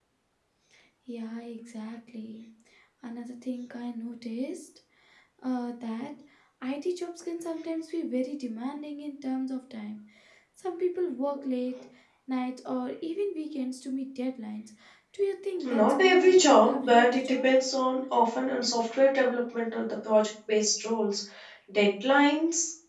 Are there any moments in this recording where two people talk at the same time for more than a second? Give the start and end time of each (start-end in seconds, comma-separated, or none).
15.7-17.5